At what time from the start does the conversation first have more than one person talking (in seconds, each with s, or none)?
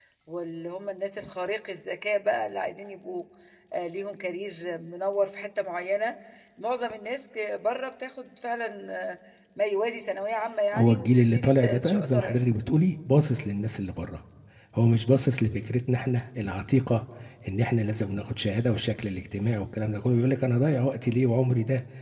10.7 s